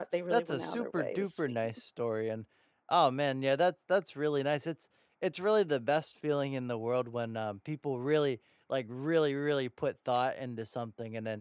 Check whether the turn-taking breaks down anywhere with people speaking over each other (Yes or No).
Yes